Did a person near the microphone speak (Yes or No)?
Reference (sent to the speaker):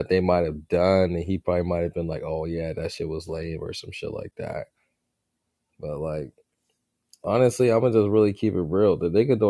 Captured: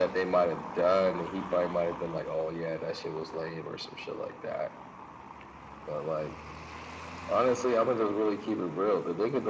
No